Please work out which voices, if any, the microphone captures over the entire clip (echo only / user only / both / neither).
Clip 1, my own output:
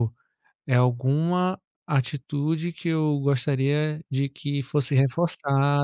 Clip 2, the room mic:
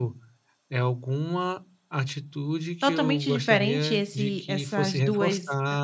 both